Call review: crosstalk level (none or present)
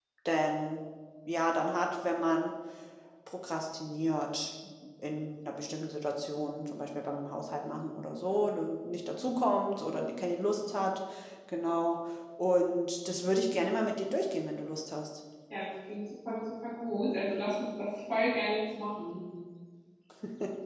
none